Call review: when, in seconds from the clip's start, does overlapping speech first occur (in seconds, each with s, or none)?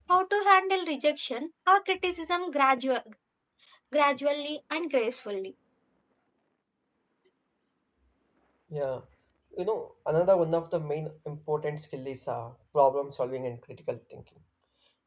none